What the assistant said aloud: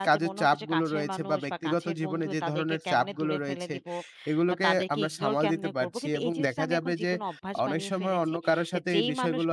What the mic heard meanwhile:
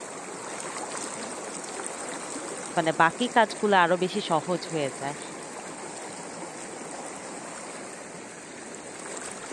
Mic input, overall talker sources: user only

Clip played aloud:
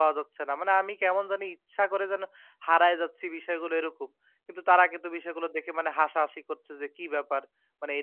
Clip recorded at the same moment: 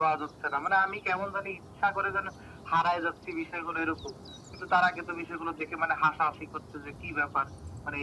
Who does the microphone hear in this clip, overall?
echo only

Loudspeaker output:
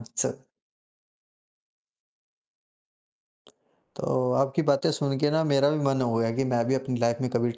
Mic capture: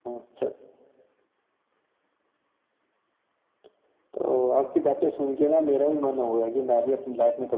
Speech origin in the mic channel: echo only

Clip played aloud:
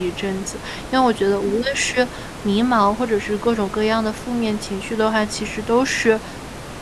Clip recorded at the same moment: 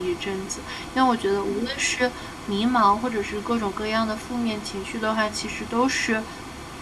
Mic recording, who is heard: echo only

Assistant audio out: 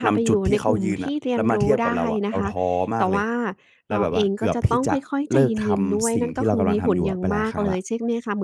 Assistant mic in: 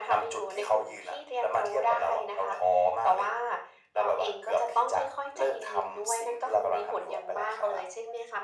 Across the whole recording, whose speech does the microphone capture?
echo only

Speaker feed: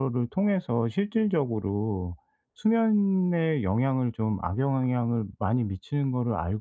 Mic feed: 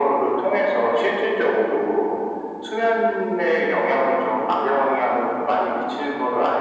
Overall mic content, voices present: echo only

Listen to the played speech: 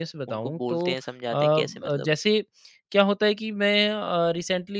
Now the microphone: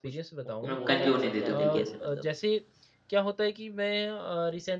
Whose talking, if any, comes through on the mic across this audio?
both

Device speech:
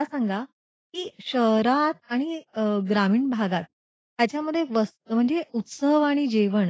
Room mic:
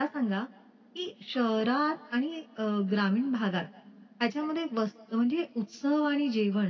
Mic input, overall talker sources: echo only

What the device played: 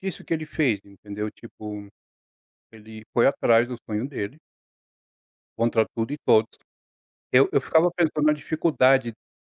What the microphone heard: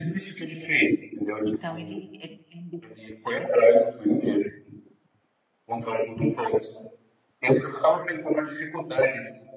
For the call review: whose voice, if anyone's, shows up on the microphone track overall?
both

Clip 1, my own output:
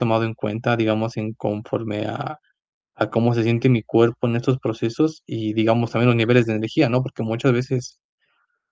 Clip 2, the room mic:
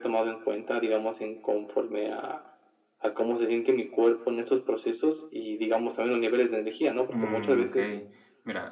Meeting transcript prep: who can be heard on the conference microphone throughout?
both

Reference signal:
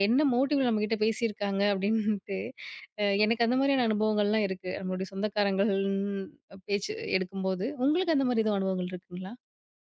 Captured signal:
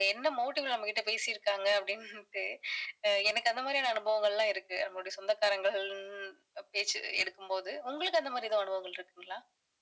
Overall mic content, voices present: echo only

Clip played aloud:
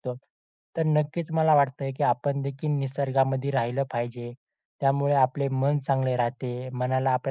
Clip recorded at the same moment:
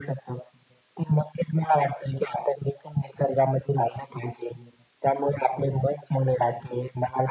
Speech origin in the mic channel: echo only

